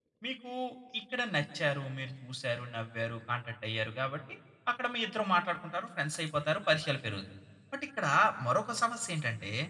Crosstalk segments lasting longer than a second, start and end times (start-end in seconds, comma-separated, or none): none